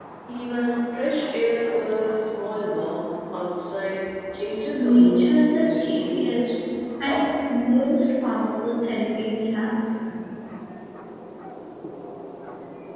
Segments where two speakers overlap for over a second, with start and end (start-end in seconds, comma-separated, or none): 4.8-6.2